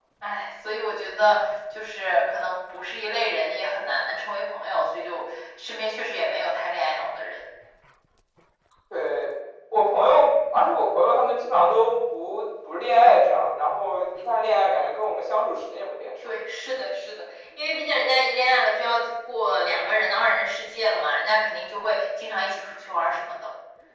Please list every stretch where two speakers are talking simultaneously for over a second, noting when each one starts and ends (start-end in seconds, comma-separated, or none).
none